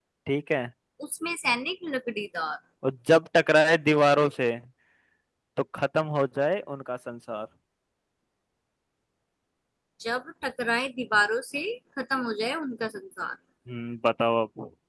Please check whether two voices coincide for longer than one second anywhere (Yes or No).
No